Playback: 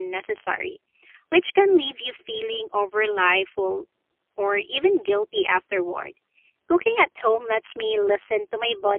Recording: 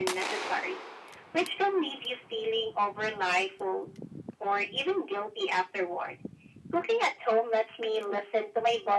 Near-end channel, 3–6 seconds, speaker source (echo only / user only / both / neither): echo only